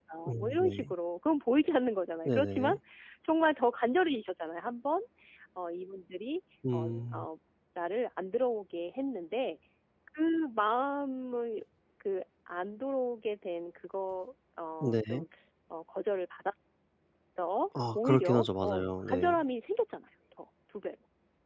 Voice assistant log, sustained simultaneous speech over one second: present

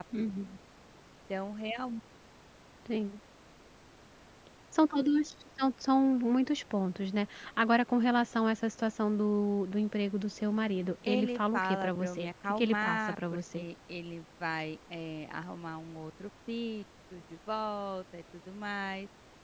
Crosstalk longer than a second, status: present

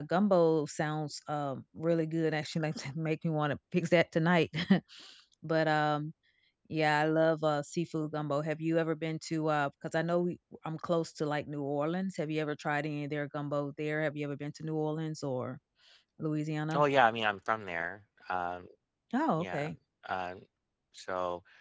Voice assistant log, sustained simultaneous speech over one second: none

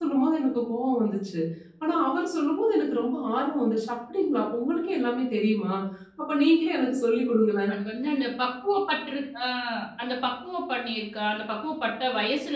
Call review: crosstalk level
none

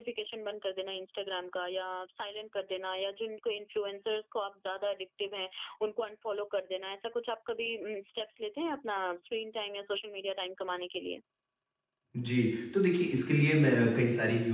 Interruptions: none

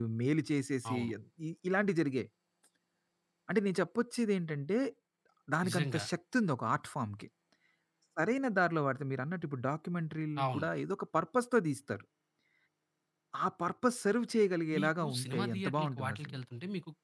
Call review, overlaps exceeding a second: present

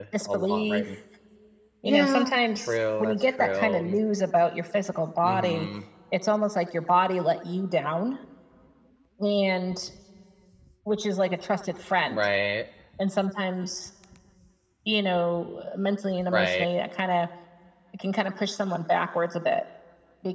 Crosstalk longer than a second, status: present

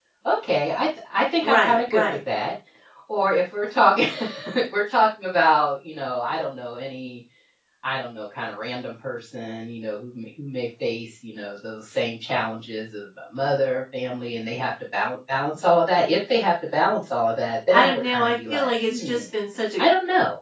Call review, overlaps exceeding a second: present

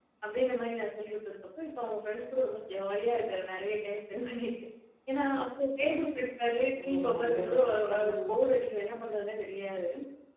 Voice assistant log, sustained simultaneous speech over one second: present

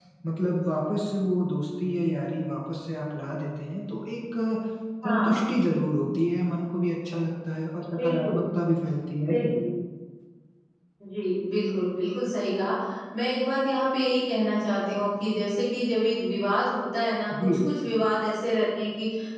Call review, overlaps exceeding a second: none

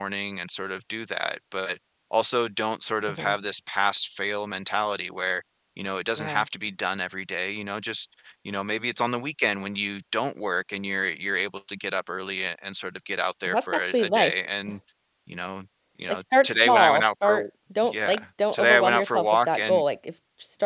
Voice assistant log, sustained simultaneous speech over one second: present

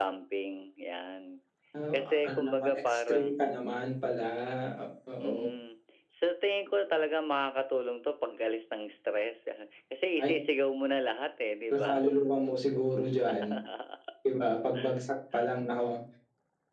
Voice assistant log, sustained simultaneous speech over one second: present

